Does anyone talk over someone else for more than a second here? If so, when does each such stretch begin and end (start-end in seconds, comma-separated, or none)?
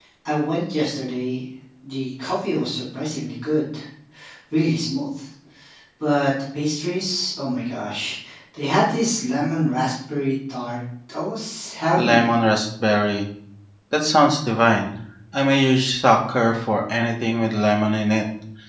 none